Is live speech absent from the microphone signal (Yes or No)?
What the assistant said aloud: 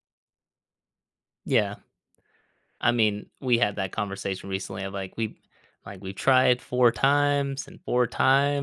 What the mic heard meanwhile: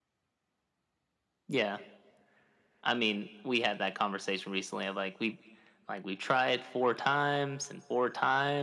Yes